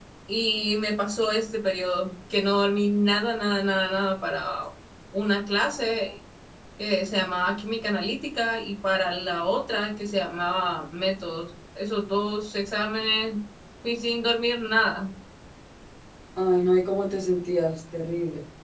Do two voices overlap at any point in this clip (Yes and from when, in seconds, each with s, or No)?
No